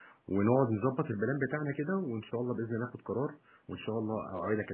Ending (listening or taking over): taking over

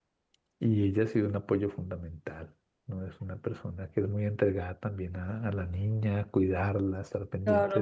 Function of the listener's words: taking over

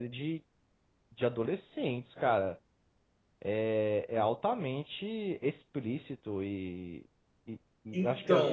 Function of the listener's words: listening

